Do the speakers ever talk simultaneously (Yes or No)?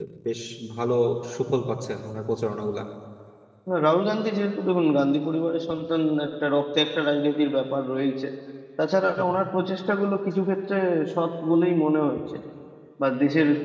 No